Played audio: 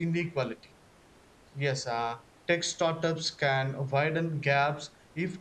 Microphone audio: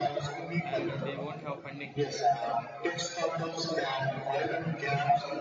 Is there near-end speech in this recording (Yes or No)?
Yes